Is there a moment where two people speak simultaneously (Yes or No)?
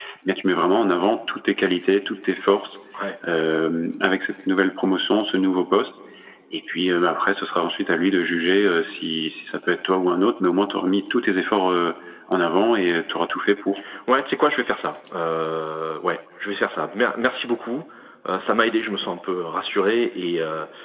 No